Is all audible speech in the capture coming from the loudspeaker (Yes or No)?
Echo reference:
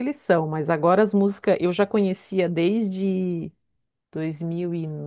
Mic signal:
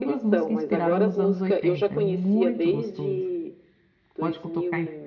No